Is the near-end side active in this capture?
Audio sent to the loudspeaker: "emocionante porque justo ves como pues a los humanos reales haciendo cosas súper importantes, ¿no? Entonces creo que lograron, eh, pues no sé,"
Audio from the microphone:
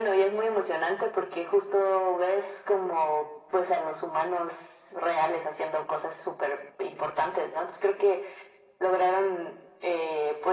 No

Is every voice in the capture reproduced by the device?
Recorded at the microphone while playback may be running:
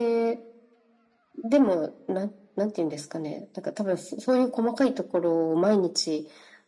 Yes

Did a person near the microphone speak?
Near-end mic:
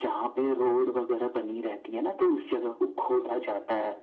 No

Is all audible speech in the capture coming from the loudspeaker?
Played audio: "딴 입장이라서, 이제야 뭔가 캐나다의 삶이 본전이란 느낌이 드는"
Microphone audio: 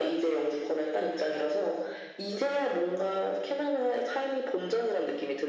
Yes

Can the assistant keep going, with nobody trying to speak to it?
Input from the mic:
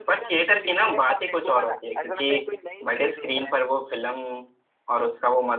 No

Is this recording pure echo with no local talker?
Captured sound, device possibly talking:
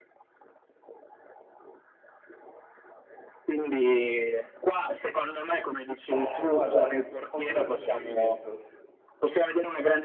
No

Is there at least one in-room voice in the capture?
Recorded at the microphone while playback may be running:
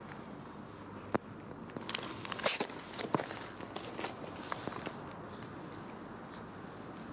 No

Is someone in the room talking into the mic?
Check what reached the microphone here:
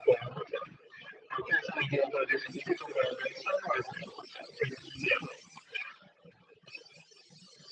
No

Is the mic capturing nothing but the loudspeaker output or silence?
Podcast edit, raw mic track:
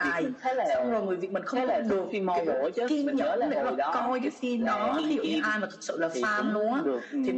Yes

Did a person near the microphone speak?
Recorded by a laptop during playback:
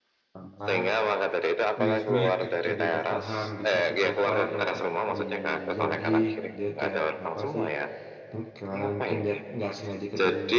Yes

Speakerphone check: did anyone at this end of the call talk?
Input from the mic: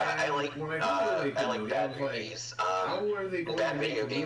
Yes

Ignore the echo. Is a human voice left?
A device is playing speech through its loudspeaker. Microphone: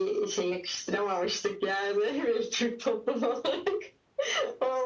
No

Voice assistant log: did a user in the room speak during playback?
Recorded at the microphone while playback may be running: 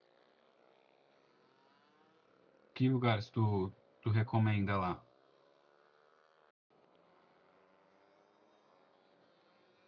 Yes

